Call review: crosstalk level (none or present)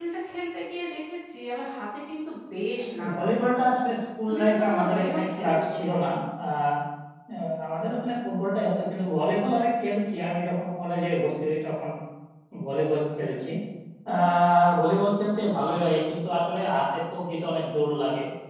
present